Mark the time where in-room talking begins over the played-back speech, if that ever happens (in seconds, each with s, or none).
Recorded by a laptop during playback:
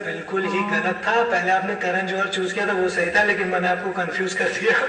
0.4 s